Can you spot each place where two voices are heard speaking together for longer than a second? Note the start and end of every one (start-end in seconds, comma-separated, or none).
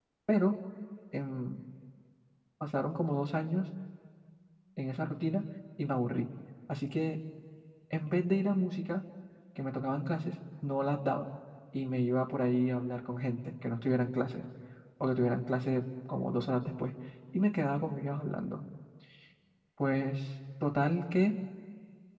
none